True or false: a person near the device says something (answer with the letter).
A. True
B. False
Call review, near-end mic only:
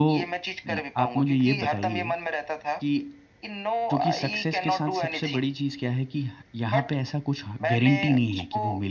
A